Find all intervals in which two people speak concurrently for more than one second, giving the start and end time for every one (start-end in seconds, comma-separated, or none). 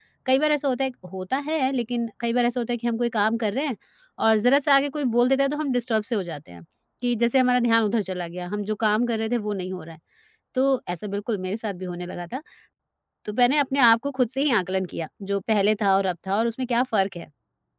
none